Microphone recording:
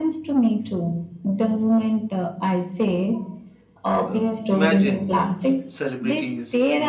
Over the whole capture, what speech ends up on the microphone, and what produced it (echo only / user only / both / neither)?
both